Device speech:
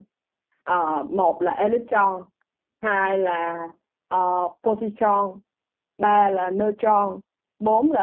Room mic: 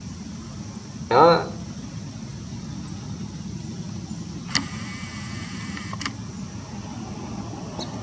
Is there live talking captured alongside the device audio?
Yes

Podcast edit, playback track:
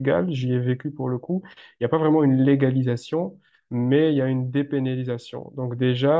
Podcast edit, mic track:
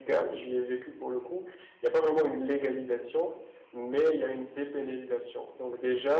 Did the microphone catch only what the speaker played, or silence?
Yes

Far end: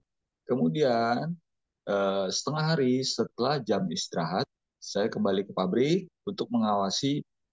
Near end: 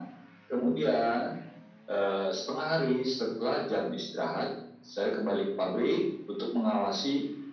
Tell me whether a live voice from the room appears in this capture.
No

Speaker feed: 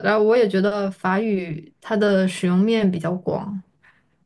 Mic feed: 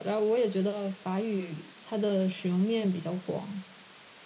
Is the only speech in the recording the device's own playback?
Yes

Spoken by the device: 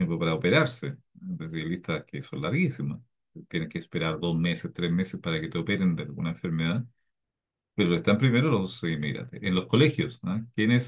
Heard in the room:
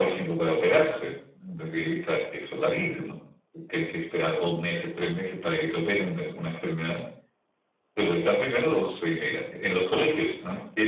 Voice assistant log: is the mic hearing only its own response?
Yes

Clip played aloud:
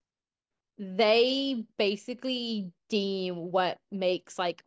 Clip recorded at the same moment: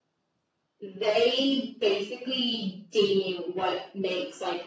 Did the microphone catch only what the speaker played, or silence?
Yes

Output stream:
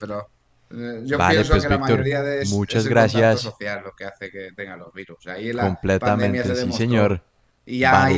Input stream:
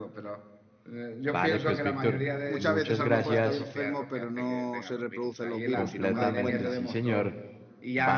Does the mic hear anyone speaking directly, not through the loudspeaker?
Yes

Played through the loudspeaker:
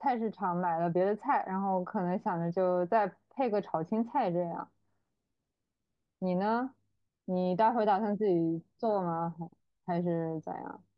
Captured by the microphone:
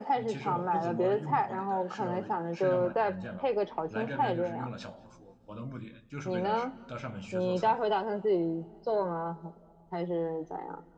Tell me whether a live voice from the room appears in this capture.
Yes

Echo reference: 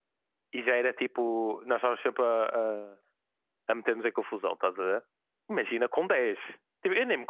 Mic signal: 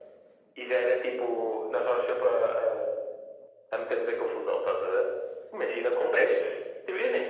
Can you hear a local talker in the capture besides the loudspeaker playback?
Yes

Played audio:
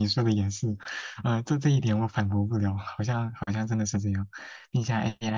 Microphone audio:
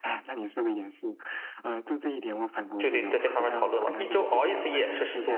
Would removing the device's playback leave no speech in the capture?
No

